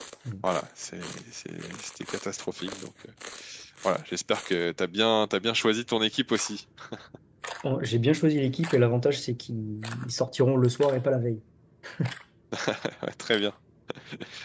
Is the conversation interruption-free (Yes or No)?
Yes